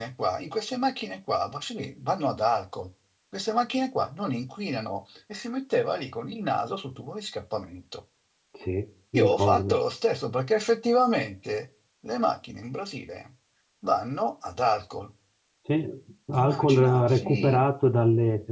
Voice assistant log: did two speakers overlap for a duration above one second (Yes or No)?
Yes